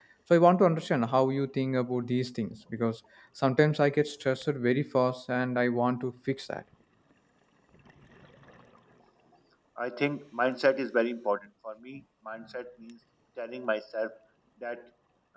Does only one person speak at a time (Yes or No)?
Yes